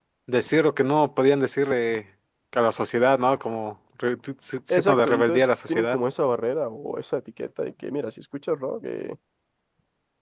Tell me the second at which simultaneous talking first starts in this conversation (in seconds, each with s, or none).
4.7 s